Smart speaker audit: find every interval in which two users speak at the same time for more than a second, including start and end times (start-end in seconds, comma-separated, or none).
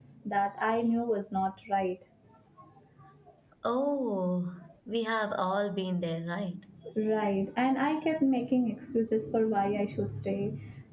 none